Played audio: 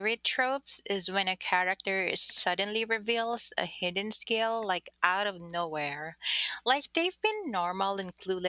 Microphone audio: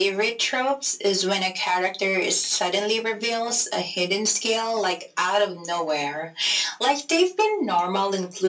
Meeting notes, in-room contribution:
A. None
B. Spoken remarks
A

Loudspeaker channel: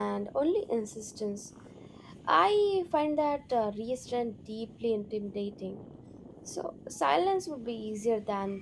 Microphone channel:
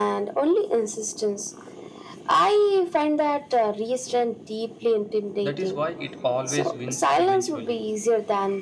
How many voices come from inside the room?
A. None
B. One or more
B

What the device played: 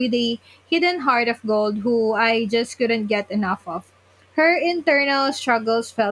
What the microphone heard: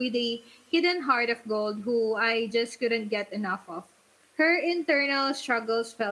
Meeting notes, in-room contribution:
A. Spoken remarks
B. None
B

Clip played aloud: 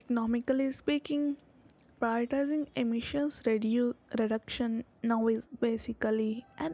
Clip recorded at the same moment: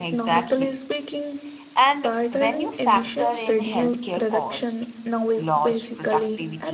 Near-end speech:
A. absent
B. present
B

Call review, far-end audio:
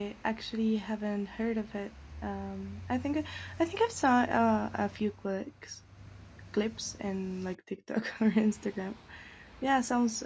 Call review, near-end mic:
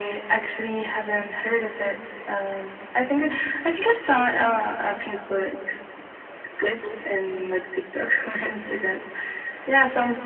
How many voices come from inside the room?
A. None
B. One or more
A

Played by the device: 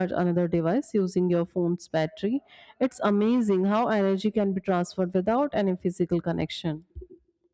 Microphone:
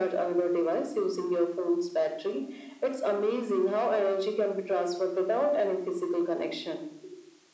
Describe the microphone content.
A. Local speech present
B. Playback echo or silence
B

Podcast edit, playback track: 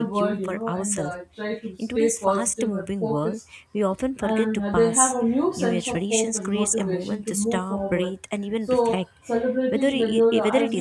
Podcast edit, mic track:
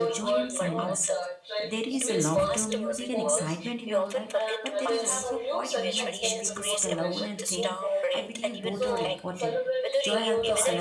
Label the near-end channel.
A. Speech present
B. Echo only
A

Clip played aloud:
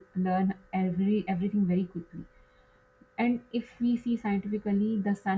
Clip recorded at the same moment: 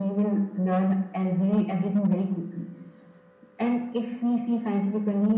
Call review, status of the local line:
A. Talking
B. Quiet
B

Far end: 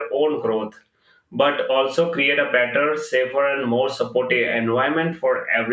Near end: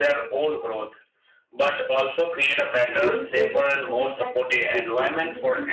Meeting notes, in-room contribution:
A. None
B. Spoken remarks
B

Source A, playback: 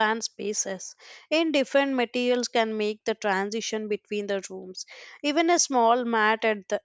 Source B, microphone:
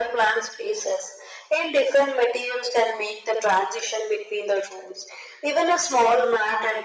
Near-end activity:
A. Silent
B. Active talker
A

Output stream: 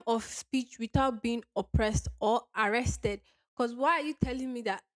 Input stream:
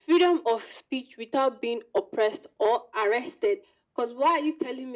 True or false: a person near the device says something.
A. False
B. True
A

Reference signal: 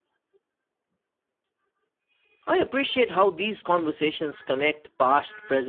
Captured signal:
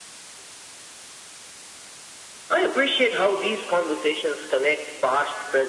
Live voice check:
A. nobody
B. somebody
A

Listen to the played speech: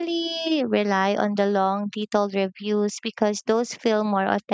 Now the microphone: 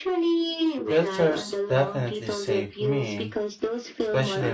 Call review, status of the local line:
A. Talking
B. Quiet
A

